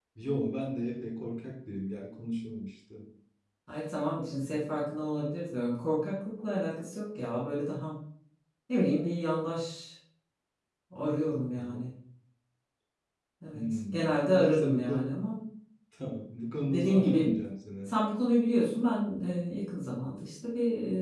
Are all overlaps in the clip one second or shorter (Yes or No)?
No